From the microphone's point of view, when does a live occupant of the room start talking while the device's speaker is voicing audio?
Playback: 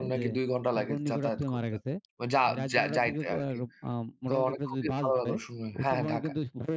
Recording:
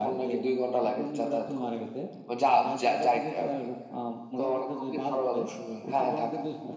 none

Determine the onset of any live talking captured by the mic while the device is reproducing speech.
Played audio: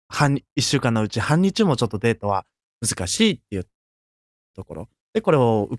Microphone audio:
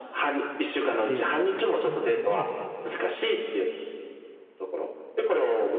0.9 s

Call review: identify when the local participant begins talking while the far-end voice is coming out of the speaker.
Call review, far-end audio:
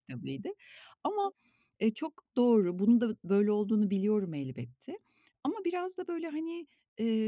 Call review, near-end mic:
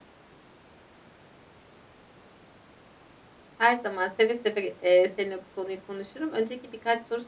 3.6 s

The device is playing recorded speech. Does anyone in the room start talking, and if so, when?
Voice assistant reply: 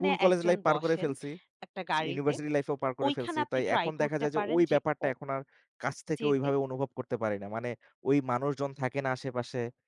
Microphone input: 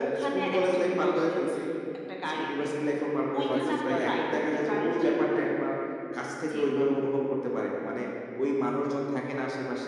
3.1 s

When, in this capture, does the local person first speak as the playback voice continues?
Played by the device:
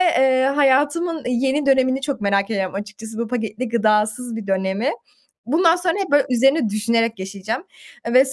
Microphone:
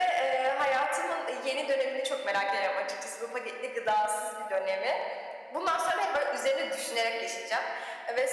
none

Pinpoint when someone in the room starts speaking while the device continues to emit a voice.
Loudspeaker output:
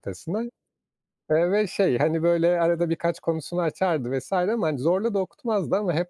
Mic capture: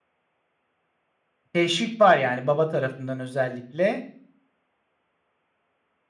1.5 s

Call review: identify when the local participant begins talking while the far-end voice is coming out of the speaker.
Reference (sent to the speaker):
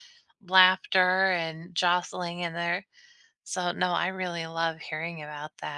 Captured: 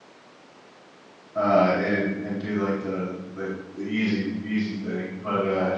1.3 s

